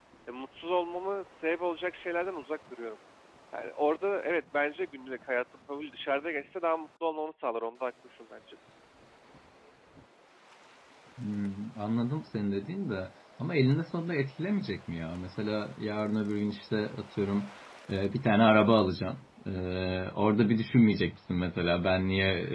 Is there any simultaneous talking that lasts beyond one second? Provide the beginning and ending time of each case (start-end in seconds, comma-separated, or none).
none